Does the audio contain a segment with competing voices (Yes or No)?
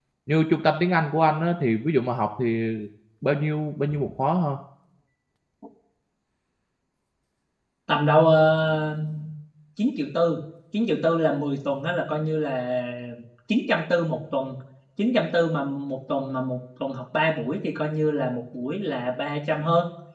No